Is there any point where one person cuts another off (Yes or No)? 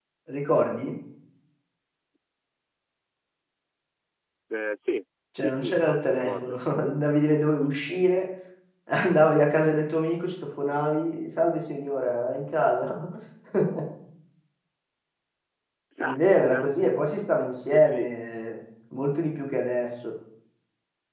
Yes